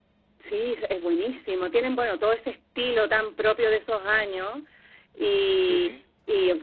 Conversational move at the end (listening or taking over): listening